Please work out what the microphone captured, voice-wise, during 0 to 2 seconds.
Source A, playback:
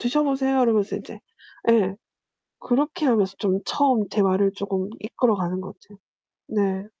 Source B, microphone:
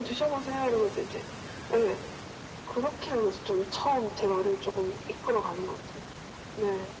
echo only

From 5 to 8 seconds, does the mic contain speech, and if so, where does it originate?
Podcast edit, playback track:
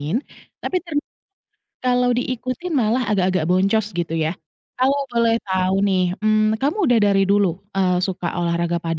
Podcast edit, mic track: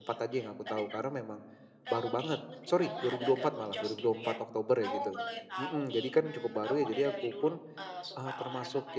both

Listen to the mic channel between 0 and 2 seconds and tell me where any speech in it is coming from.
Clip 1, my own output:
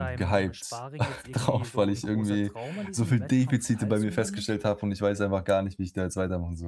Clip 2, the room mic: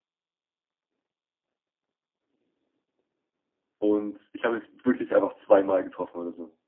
neither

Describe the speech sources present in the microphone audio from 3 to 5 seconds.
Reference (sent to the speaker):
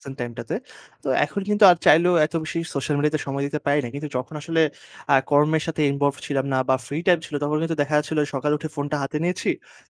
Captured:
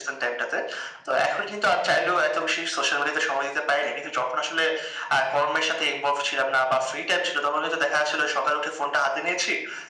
echo only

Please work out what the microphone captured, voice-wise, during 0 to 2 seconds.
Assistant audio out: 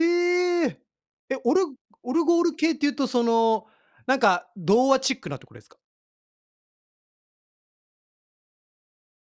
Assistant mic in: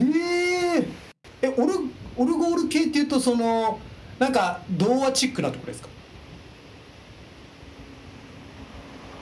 echo only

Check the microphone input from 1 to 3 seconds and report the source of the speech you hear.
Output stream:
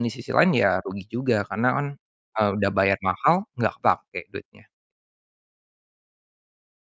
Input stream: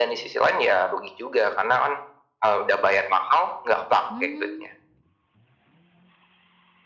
echo only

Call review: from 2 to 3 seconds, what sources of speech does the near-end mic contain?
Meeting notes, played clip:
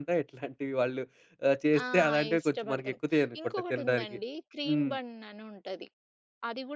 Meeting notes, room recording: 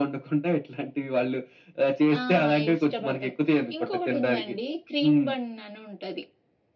echo only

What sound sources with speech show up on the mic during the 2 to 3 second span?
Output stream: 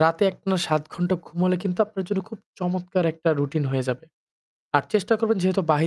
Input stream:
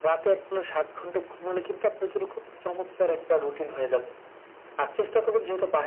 echo only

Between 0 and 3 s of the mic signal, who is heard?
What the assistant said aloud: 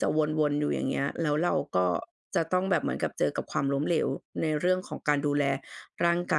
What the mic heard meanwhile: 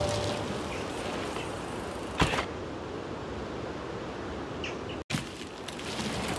neither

